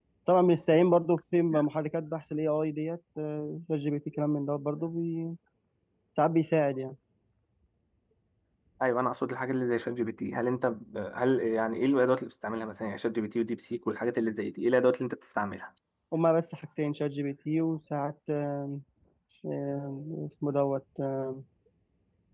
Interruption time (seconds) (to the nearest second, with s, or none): none